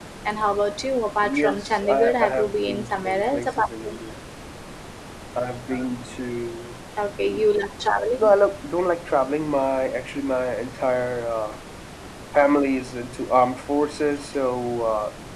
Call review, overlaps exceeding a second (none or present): present